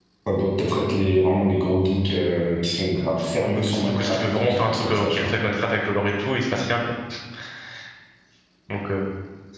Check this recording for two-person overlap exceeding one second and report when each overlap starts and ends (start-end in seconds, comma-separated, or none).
3.5-5.3